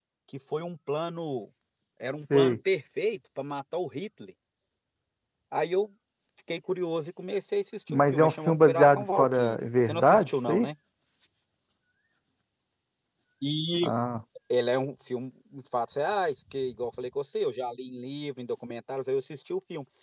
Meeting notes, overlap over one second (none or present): present